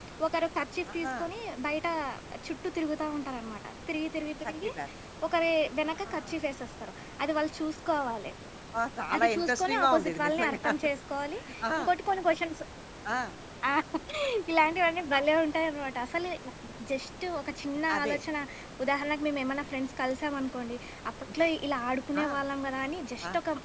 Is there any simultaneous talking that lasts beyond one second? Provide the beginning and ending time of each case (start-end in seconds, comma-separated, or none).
9.2-10.7